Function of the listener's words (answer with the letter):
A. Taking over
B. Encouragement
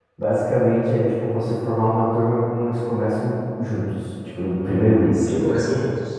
A